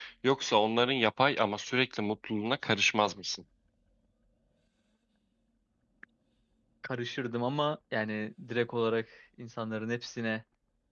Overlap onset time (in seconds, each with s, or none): none